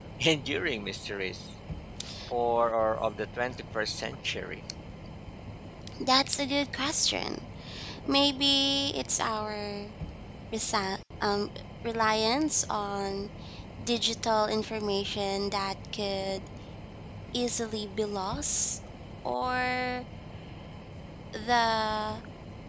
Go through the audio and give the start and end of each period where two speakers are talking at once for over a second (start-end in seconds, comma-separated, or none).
none